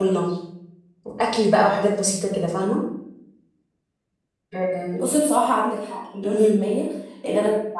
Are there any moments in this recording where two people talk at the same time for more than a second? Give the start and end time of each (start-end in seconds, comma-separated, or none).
none